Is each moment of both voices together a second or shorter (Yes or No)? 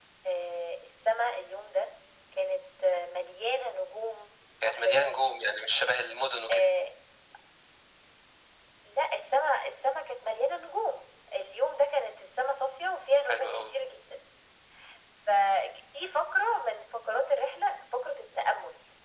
Yes